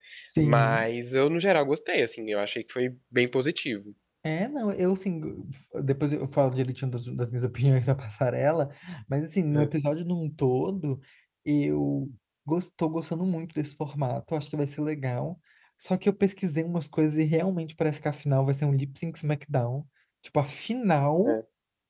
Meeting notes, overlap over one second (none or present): none